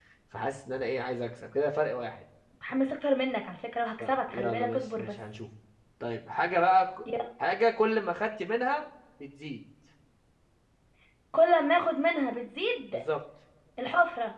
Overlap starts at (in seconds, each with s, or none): 4.0 s